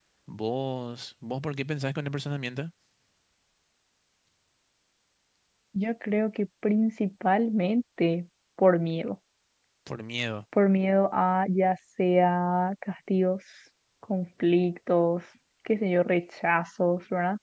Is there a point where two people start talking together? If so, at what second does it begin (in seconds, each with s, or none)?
none